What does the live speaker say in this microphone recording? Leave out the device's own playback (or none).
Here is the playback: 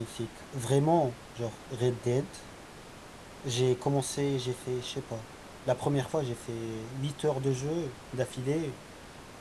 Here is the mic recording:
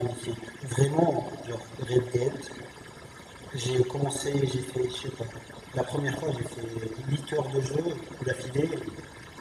none